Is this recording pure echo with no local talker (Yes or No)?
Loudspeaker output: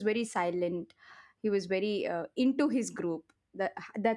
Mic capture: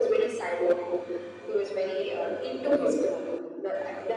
No